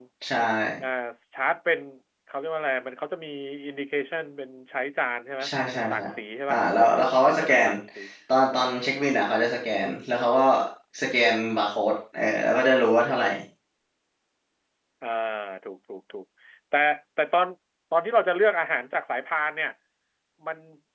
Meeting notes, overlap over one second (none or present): none